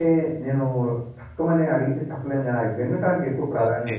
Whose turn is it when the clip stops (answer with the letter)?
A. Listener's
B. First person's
A